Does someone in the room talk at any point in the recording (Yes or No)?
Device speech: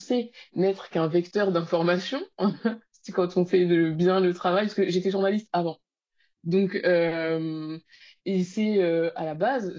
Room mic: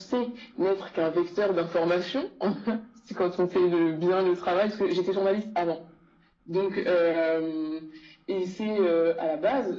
No